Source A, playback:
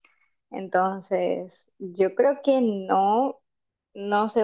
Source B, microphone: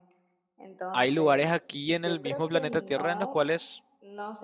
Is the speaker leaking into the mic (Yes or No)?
Yes